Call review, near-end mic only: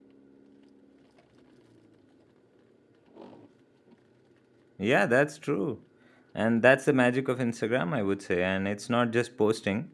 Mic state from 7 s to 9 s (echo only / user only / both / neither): user only